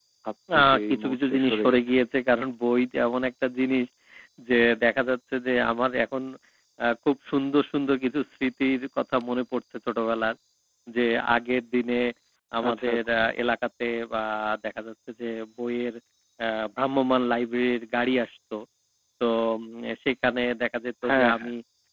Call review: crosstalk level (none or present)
present